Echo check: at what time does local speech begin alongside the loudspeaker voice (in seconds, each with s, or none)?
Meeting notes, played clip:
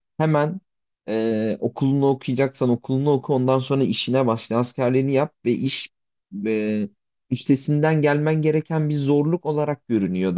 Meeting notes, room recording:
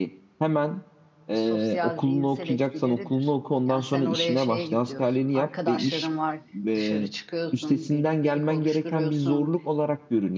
1.3 s